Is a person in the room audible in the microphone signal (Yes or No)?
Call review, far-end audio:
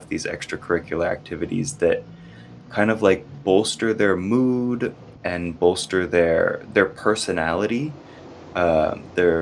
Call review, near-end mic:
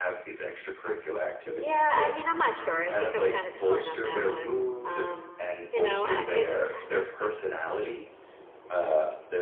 Yes